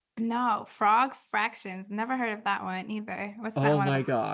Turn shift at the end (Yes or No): Yes